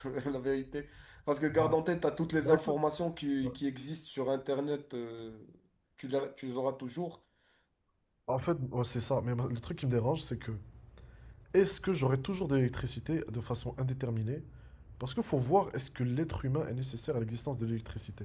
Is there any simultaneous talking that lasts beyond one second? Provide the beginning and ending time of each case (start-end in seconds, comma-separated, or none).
none